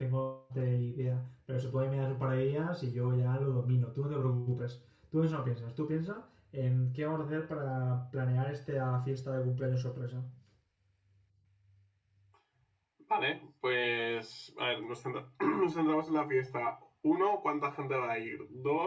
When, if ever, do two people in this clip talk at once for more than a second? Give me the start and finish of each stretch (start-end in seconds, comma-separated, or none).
none